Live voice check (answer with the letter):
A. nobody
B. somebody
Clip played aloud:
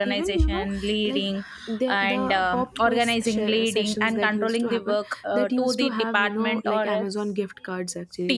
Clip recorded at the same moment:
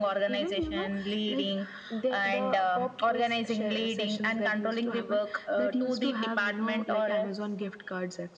A